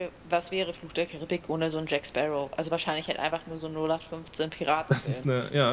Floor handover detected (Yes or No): Yes